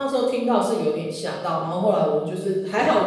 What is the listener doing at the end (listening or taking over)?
listening